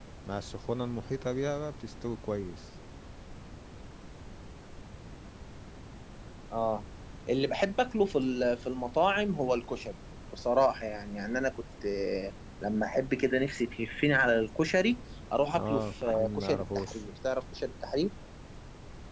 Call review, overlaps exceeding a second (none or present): present